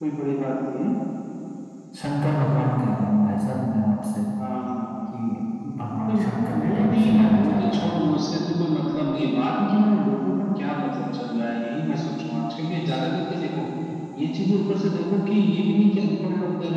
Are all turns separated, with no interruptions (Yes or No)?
No